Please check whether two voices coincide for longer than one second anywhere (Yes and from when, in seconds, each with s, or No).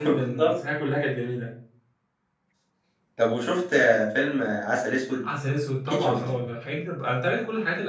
No